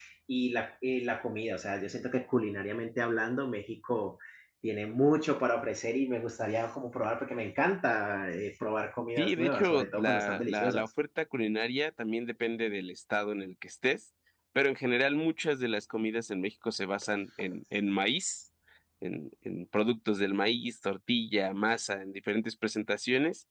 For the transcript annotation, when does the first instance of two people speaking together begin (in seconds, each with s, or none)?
9.2 s